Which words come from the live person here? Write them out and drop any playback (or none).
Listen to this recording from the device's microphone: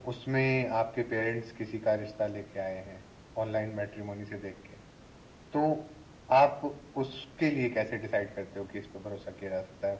none